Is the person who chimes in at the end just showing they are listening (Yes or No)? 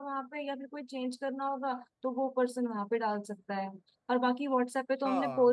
Yes